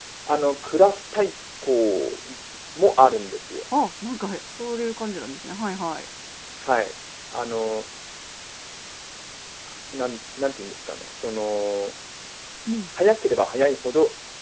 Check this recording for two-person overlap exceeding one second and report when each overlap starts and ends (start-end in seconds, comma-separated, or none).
none